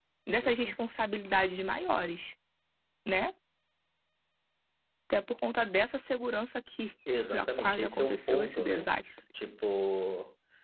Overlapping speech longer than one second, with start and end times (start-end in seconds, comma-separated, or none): 7.3-8.9